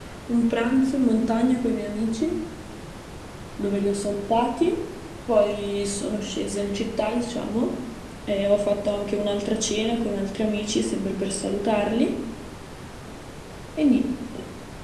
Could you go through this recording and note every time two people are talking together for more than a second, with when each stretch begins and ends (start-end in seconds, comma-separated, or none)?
none